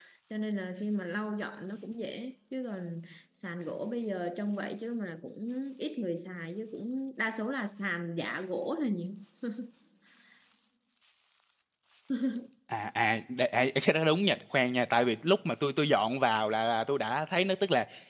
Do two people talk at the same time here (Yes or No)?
No